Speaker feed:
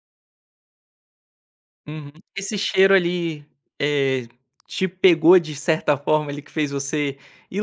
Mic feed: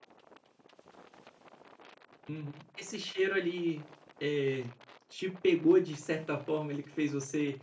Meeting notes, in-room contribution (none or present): none